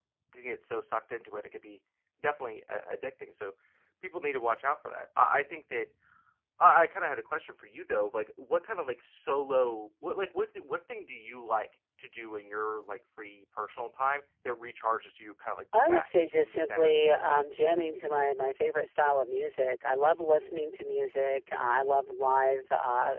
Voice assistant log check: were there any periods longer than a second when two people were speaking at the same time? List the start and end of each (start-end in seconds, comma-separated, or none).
15.9-17.5